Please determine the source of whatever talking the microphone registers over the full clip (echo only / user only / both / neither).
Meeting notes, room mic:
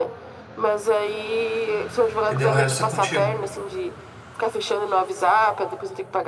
both